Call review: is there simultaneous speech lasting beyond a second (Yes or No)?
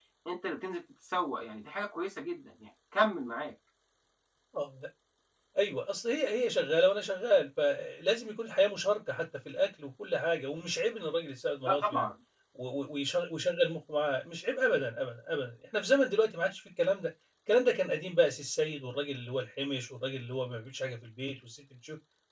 No